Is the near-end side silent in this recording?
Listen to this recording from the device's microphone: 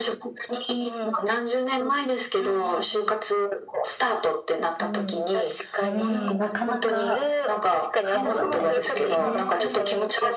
No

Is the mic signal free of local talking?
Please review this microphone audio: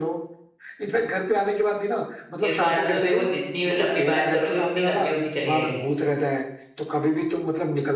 No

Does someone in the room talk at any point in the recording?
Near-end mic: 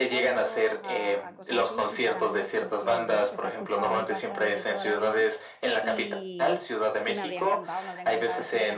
Yes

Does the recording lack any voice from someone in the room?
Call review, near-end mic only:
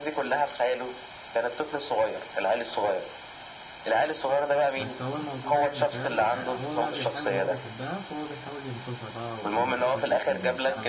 No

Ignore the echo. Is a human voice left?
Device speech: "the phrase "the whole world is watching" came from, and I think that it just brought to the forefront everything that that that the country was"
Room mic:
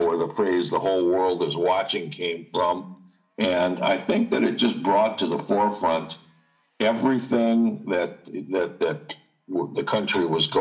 No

